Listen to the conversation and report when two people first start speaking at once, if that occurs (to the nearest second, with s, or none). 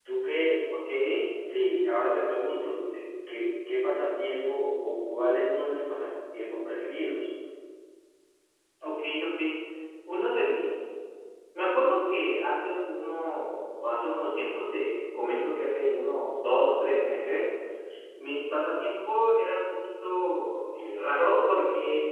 none